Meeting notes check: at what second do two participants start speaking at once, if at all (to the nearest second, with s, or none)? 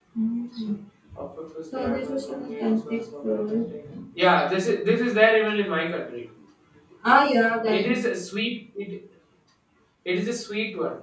2 s